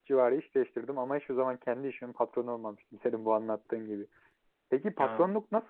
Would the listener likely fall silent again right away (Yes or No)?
Yes